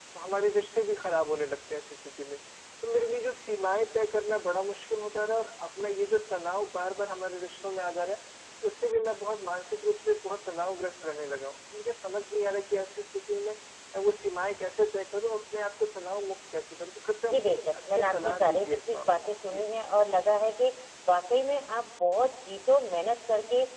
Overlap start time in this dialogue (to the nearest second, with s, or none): 17 s